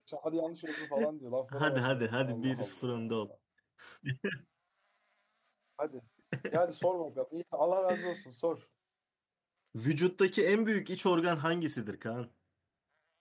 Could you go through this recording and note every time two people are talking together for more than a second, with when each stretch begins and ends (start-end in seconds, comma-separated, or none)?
1.5-3.0